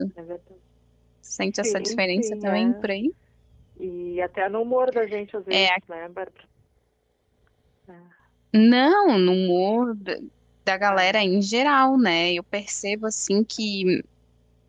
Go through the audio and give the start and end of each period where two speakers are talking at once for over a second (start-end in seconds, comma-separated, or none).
1.4-2.8